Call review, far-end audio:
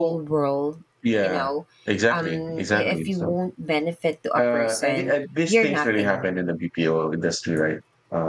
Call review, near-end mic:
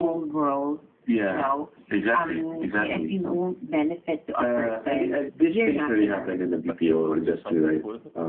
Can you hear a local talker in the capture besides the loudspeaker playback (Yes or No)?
Yes